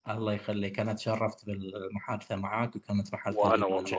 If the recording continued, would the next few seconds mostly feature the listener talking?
No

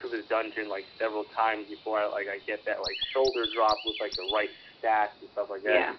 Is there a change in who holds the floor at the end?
No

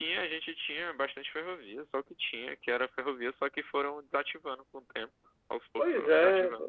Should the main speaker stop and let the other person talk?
Yes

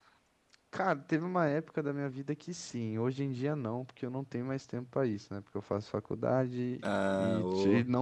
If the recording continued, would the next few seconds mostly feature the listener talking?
No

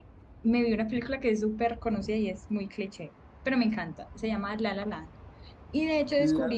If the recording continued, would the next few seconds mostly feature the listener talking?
No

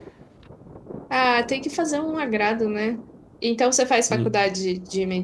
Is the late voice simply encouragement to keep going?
Yes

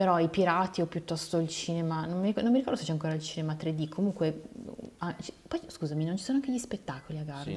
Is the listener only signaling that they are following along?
No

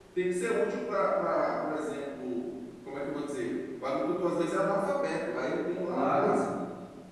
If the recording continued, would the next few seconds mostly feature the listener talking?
No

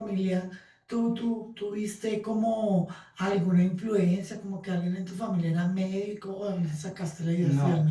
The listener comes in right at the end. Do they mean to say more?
Yes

